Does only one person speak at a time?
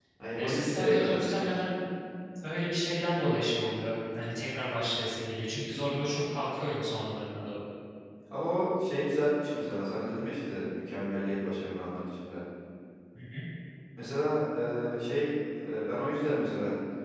No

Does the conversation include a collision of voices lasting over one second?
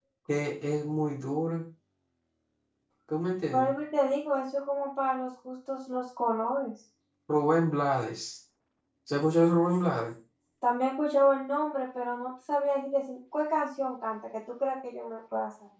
No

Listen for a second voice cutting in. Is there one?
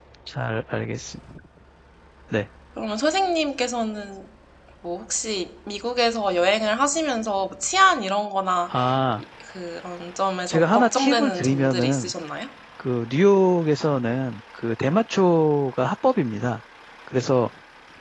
Yes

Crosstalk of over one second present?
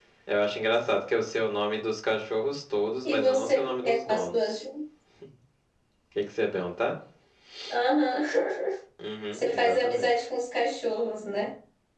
Yes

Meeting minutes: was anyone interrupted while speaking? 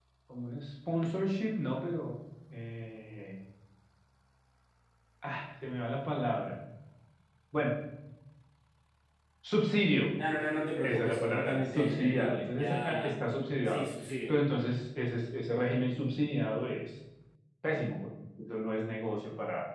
Yes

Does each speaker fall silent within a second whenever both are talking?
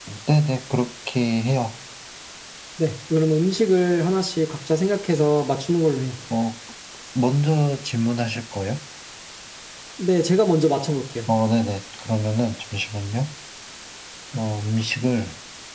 Yes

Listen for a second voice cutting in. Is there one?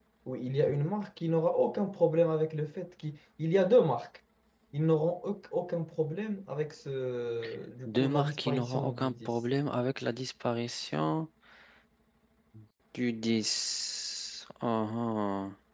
Yes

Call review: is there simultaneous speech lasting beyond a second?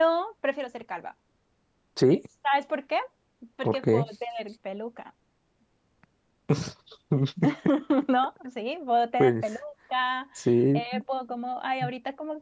No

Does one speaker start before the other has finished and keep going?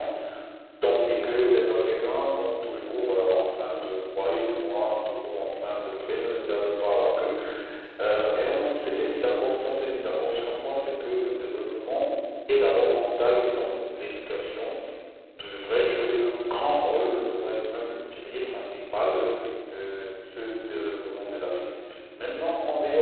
No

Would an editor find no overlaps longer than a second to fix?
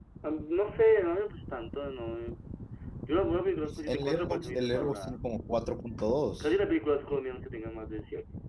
No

